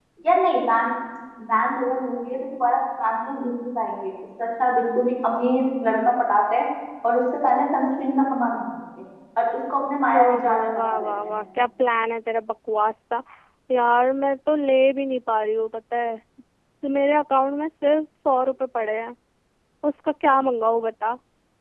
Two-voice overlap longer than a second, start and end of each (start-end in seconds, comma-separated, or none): 10.2-11.4